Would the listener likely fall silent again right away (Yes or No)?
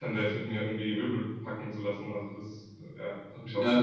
No